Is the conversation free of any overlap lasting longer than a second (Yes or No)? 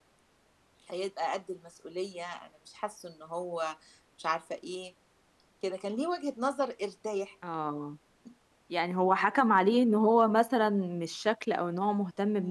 Yes